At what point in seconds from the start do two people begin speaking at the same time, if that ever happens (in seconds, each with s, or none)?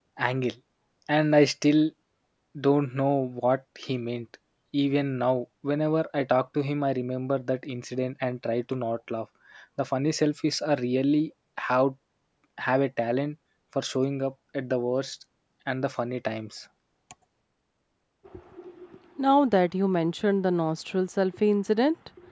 none